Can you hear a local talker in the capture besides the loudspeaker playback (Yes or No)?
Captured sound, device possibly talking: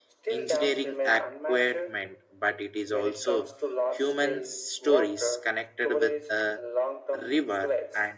Yes